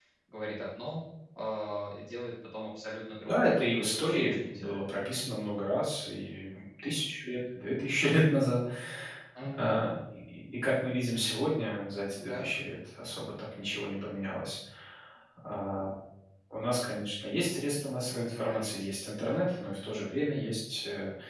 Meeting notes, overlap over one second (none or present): present